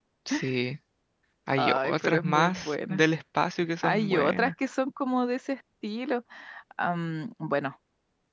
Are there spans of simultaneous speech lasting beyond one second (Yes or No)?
Yes